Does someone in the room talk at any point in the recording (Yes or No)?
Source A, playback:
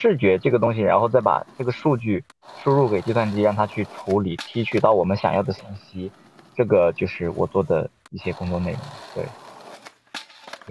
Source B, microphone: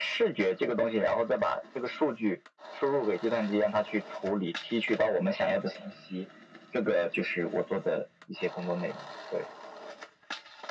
No